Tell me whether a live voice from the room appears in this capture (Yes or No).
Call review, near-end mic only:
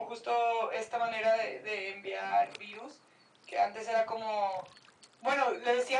No